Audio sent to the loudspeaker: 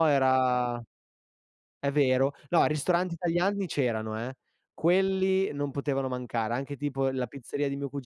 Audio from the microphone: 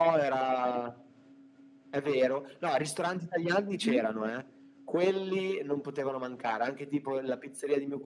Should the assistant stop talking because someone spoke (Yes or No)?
Yes